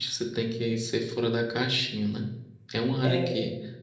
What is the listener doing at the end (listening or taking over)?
listening